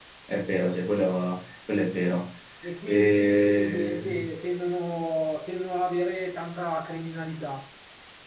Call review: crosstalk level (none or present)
present